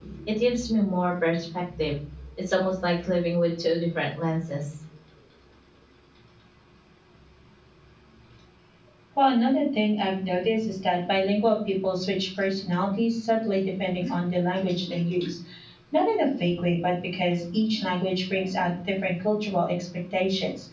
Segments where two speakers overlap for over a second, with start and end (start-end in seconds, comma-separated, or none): none